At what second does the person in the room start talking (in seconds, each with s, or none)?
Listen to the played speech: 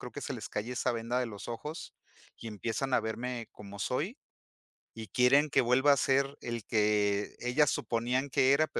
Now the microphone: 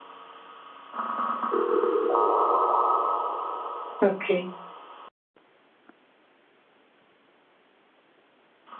4.0 s